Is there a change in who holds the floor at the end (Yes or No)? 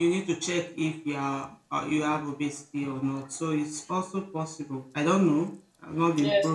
Yes